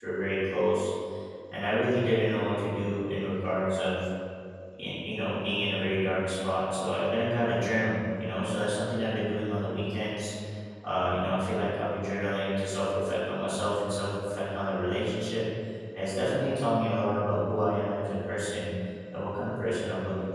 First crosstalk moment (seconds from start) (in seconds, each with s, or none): none